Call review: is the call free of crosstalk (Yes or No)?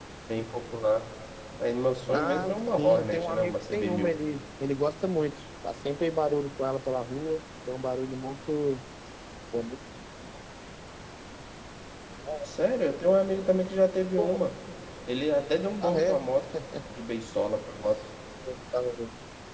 No